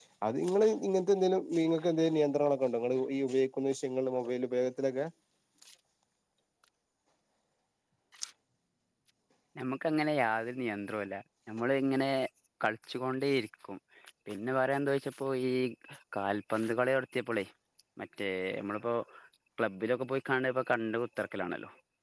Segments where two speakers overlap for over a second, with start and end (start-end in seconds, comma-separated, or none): none